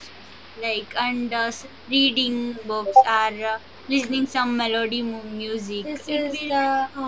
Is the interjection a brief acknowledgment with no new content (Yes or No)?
No